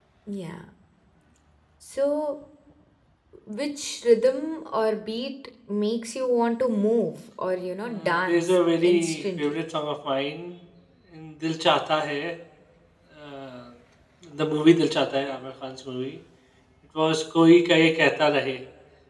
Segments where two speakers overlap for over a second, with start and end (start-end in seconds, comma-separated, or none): 7.9-9.6